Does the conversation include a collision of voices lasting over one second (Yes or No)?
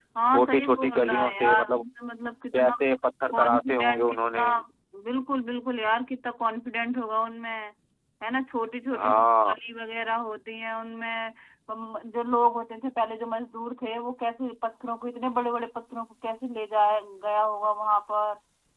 Yes